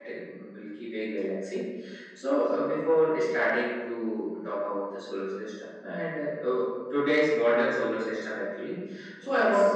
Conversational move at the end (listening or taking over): taking over